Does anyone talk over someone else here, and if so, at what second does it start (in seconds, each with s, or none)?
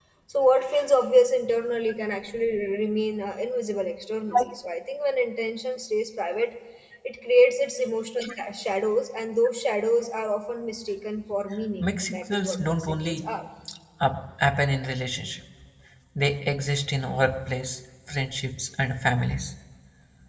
11.8 s